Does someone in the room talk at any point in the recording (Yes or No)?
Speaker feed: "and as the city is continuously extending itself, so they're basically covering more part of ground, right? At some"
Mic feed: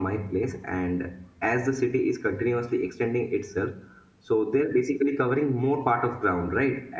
No